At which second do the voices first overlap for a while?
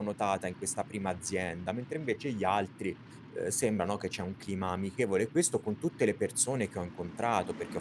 none

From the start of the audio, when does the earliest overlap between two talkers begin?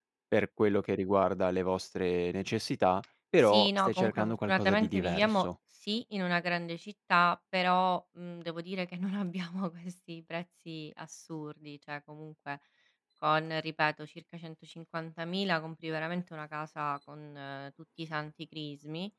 3.4 s

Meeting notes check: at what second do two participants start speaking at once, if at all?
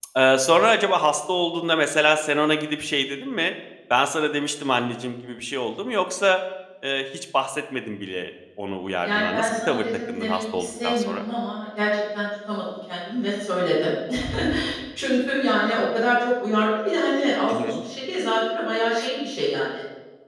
9.0 s

